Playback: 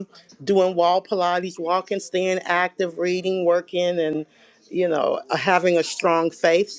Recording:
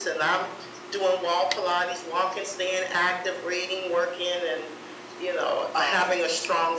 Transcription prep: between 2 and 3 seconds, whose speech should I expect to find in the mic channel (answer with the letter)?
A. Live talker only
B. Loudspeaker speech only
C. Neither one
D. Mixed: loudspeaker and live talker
B